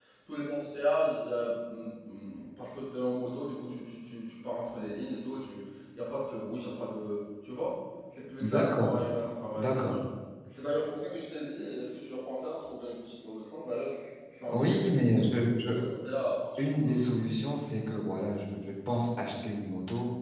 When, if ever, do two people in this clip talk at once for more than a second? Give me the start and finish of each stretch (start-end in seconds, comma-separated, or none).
none